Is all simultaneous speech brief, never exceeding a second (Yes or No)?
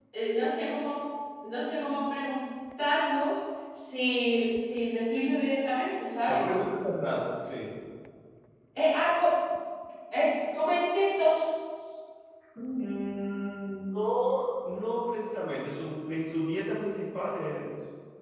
Yes